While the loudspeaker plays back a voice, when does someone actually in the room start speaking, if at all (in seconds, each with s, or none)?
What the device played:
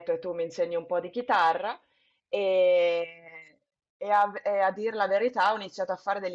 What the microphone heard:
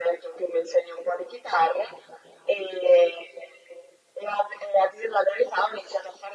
none